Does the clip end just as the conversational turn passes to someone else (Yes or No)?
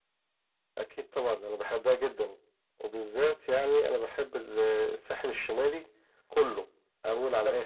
Yes